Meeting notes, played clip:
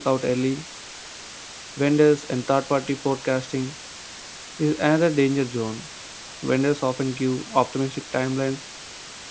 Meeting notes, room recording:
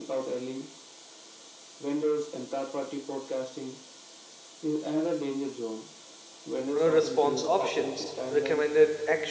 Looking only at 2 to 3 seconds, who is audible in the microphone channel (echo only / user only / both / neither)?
echo only